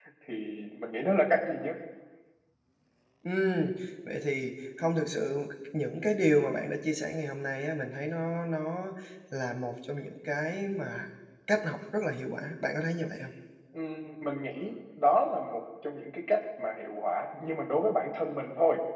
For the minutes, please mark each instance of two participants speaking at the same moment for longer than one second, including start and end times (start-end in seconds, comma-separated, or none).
none